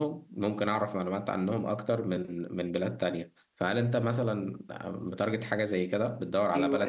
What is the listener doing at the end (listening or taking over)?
taking over